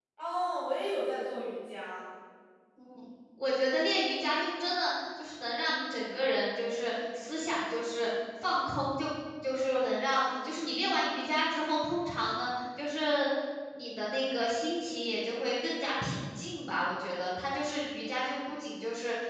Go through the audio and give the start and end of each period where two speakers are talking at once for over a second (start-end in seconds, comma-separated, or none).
none